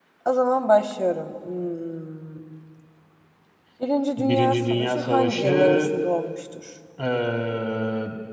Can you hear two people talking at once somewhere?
Yes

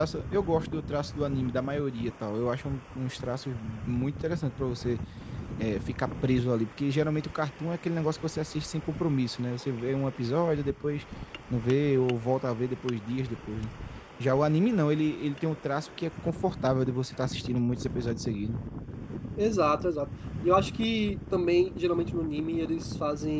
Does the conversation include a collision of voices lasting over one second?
No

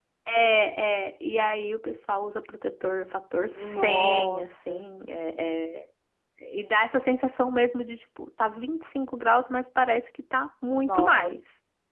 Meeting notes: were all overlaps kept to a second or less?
No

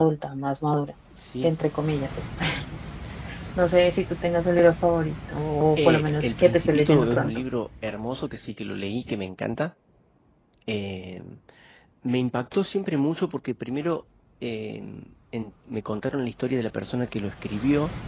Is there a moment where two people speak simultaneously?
Yes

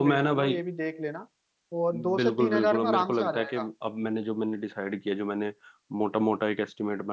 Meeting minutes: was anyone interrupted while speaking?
Yes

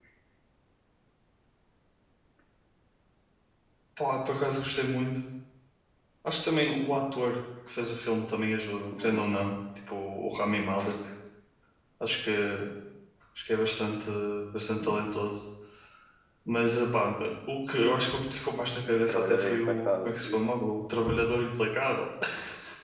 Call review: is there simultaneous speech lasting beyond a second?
Yes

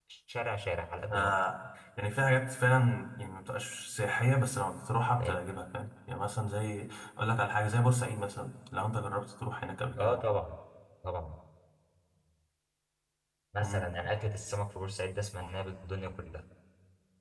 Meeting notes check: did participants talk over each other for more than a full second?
No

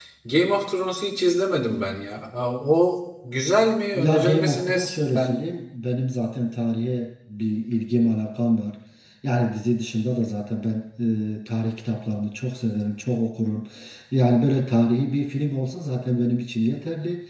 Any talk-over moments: Yes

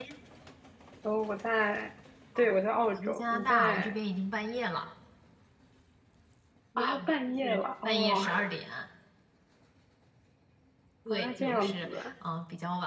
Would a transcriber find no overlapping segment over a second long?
No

